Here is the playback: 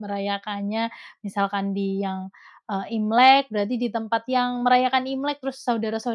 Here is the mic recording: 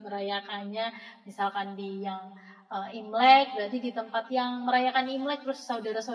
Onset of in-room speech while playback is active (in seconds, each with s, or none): none